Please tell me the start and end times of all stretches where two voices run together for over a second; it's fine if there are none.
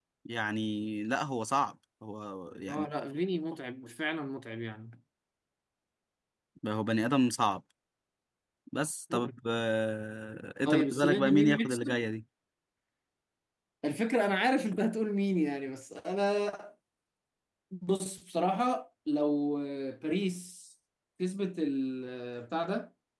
10.7-12.0

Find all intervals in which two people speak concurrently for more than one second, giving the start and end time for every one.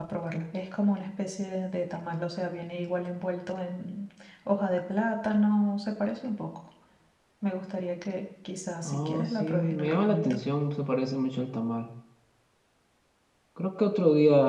8.8-10.4

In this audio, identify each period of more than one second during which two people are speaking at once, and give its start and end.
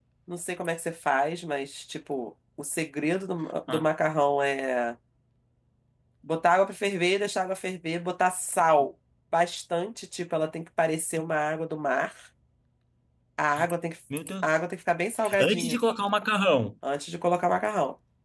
none

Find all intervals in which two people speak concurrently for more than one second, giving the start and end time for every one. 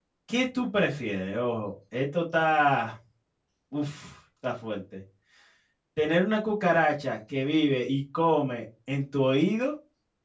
none

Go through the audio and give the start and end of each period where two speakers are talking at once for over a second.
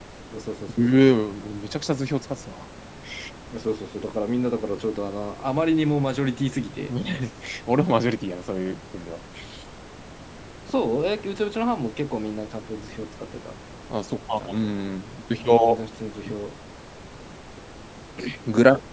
none

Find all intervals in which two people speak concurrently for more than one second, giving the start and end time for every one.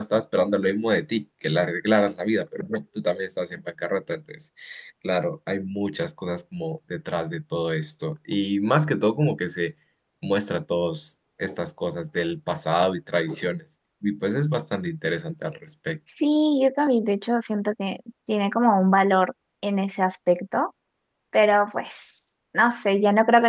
none

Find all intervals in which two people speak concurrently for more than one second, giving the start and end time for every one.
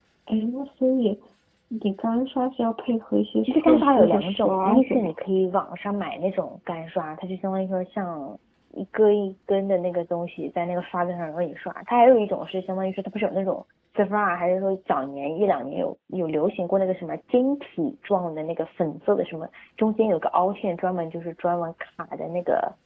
3.4-5.1

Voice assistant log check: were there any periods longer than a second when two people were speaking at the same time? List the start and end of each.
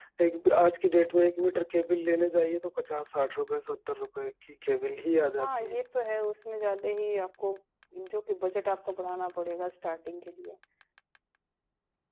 none

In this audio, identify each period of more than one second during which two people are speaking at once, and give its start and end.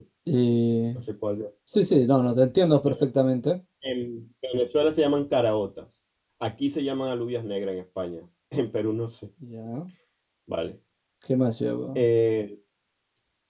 none

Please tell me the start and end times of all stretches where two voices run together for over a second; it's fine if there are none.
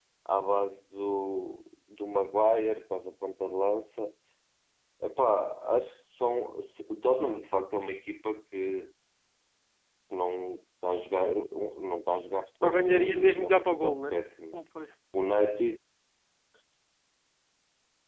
12.6-14.1

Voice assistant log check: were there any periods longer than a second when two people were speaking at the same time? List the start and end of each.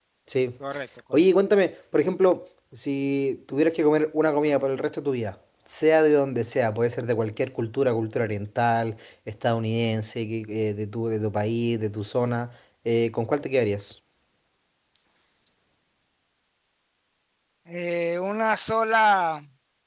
none

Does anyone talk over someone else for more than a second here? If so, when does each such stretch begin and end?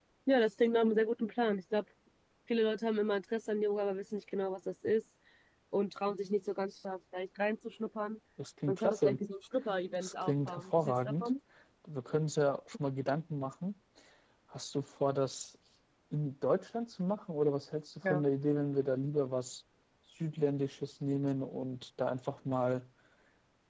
9.9-11.3

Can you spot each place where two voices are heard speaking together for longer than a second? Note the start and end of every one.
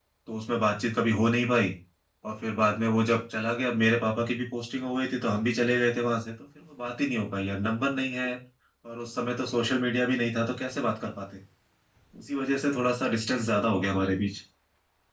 none

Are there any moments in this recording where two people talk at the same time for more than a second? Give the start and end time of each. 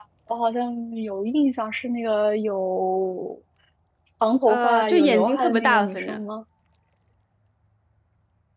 4.5-6.2

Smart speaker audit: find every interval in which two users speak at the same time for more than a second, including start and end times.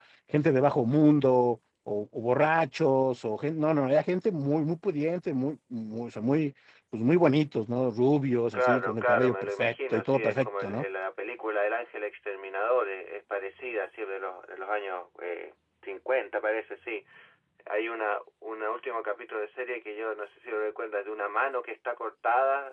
8.5-10.8

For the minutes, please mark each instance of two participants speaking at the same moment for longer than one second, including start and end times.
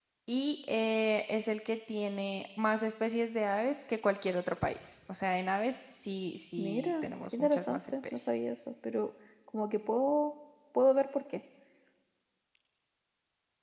6.6-8.2

